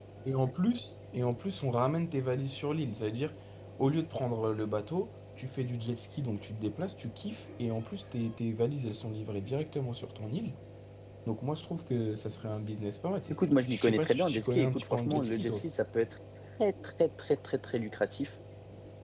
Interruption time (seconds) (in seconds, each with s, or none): 13.3 s